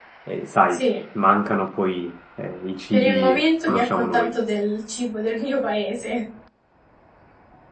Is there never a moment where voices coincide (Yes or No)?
No